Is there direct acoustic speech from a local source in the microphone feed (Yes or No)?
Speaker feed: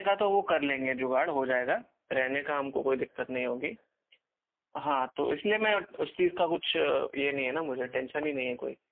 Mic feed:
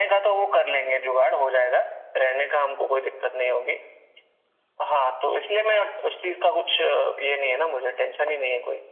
No